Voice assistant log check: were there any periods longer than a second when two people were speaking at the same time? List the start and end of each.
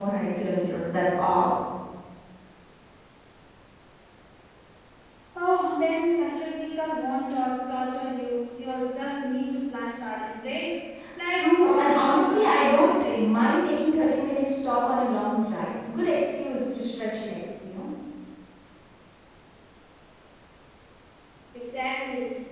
11.3-13.4

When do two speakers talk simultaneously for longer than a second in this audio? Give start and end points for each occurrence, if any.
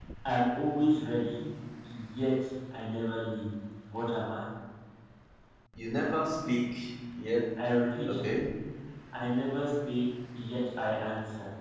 none

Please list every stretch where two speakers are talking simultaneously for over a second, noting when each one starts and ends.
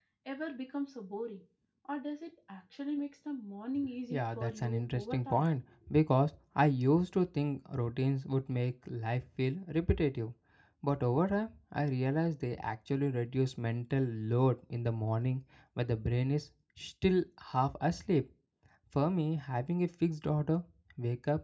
4.1-5.5

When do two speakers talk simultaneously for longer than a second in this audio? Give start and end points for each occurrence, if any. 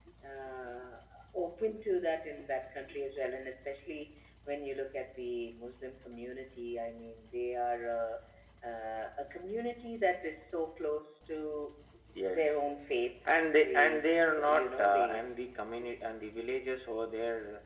13.6-15.2

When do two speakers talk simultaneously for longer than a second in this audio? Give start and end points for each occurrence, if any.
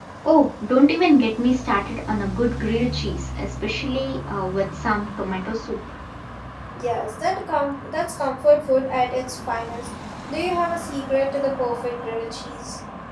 none

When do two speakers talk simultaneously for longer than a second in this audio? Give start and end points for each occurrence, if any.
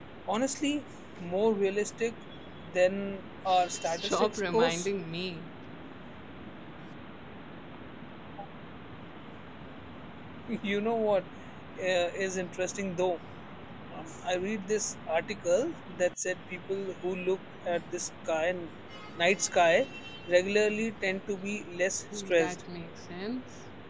3.5-4.9

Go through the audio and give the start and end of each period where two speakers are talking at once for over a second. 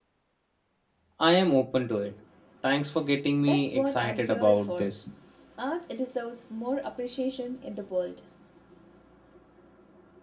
3.4-4.9

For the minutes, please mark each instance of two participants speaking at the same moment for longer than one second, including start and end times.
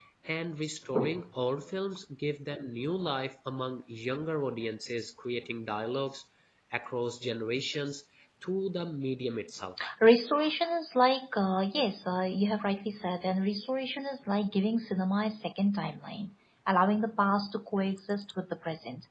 none

